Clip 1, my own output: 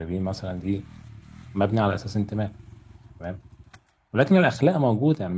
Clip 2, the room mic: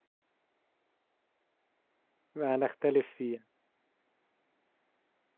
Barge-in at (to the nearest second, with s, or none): 2 s